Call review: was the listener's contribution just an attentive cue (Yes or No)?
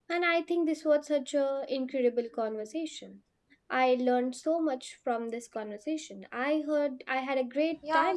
No